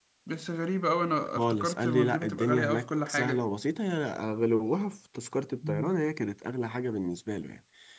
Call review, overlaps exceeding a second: present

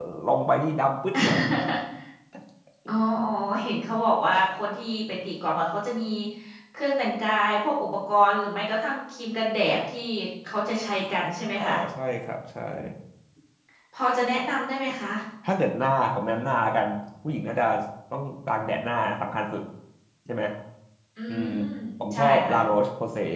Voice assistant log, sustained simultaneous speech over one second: none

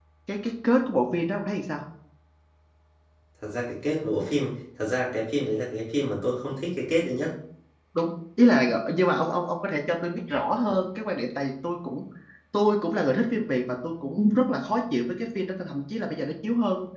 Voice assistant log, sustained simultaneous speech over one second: none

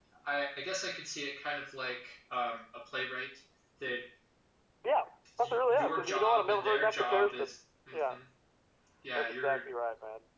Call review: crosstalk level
present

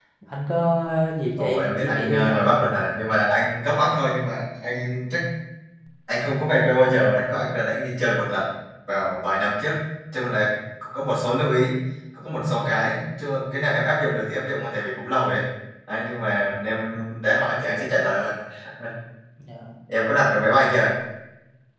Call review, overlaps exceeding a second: present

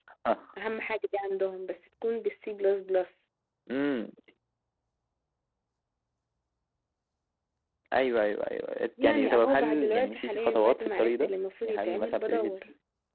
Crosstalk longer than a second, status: present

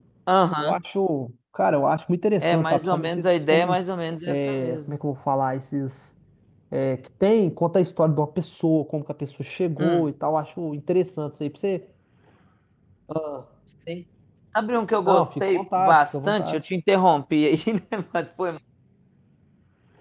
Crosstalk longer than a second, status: present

